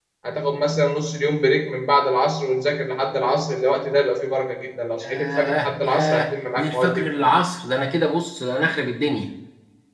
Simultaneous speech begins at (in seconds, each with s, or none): 5.0 s